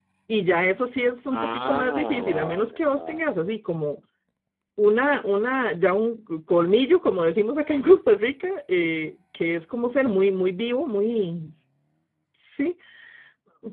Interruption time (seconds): 1.3 s

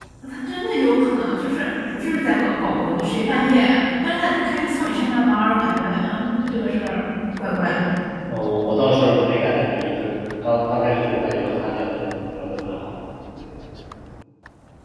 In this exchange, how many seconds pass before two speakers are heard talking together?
none

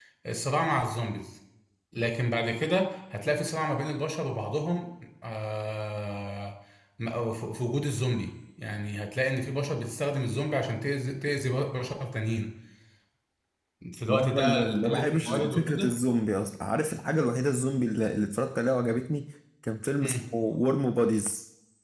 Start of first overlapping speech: 14.1 s

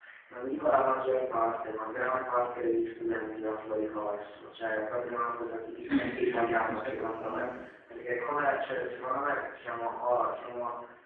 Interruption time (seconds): 5.8 s

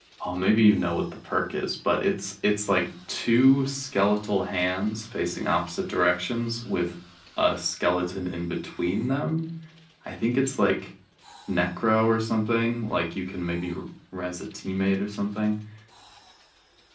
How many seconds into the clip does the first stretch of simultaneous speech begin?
none

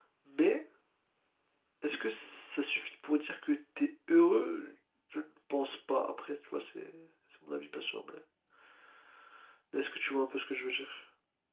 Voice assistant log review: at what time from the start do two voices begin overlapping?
none

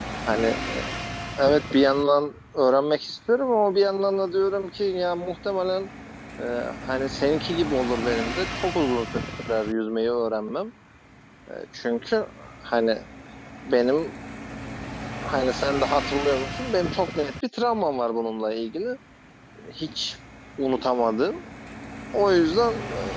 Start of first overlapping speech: none

